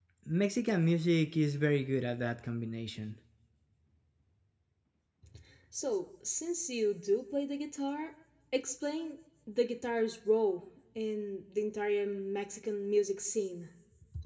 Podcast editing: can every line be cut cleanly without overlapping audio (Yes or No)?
Yes